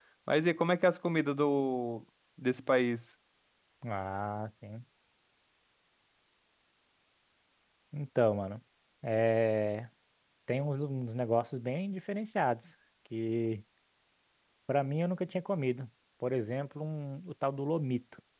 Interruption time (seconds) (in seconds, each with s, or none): none